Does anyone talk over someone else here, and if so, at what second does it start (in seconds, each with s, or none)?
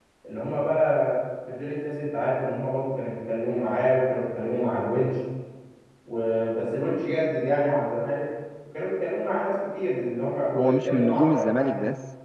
10.6 s